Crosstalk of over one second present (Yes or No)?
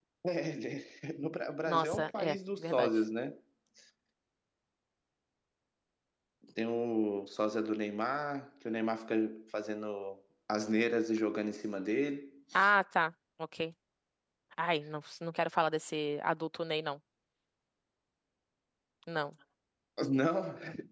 Yes